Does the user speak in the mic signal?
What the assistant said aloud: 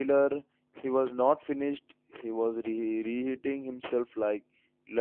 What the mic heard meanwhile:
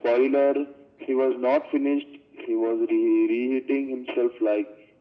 No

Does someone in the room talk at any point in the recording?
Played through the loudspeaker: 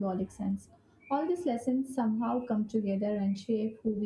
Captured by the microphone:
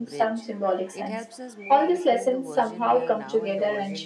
Yes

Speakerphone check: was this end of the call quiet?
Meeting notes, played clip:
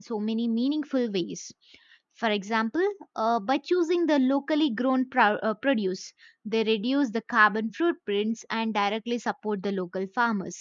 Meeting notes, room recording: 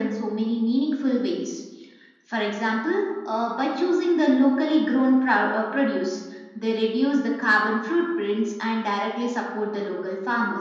Yes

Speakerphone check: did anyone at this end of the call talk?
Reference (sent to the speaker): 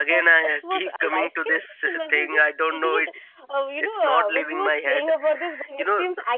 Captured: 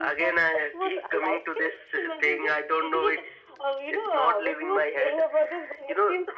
No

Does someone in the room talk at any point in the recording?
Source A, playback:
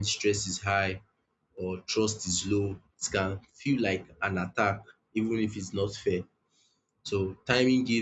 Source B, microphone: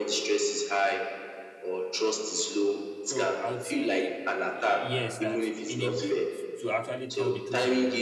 Yes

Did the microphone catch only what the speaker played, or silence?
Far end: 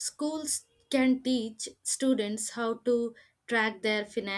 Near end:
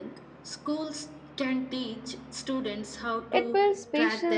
No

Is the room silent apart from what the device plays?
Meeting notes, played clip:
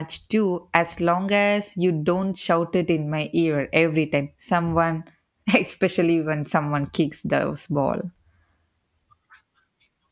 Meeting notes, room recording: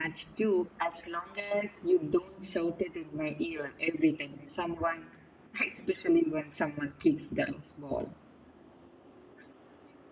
Yes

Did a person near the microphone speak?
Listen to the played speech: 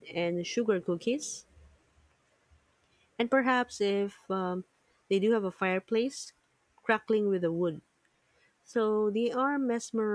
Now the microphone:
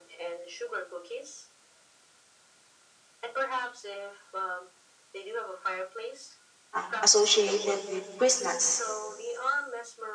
Yes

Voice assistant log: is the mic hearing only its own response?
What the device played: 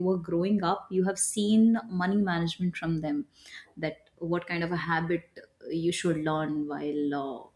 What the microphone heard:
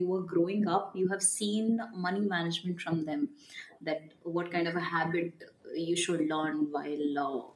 Yes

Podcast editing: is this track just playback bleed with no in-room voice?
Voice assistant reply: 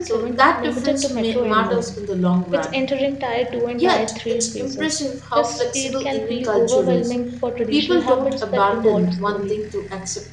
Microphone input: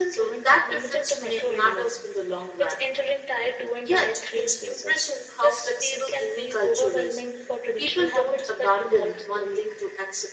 Yes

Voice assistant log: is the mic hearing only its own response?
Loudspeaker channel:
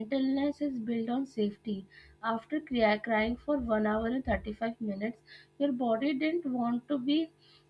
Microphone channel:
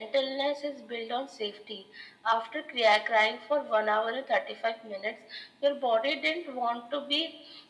Yes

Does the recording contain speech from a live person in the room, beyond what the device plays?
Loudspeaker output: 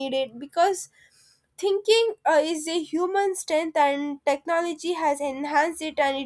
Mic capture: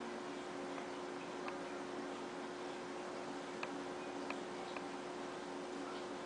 No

